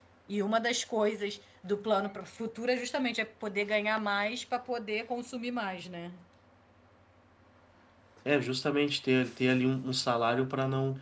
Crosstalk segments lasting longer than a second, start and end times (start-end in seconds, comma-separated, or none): none